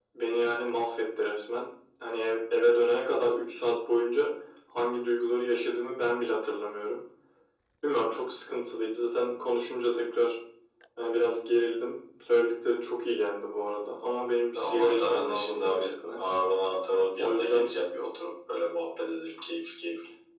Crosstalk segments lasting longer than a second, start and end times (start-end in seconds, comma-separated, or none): 14.6-16.2